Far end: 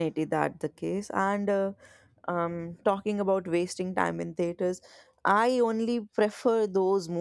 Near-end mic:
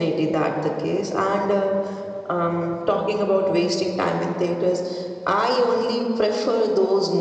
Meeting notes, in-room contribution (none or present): none